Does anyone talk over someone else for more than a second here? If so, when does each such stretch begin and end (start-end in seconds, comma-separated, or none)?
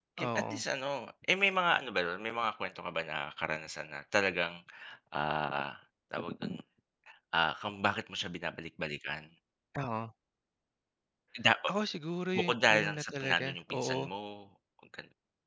12.4-14.0